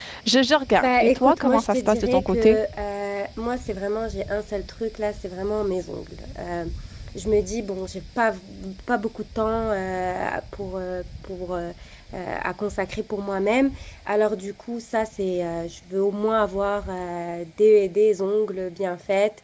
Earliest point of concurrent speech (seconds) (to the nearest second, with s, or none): 1 s